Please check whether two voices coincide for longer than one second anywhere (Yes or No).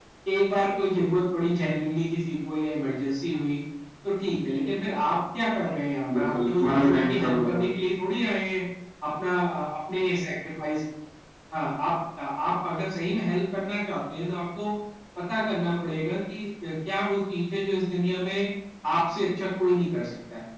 Yes